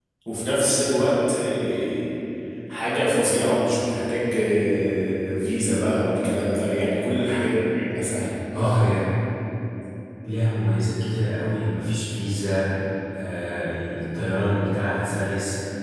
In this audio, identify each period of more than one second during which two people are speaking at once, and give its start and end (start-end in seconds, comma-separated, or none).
none